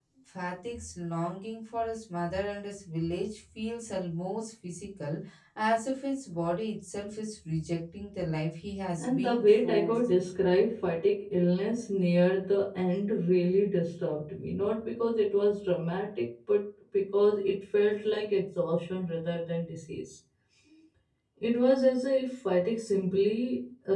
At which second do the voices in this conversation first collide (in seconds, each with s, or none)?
9.0 s